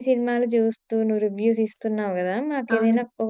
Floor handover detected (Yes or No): No